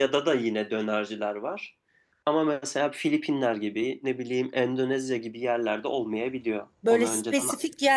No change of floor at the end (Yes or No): No